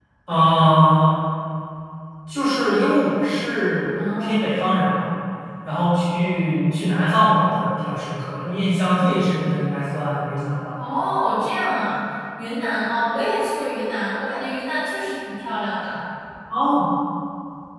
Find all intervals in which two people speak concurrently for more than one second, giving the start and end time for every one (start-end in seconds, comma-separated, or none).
none